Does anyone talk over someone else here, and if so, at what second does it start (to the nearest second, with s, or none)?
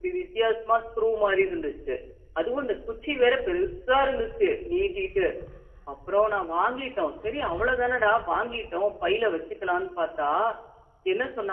none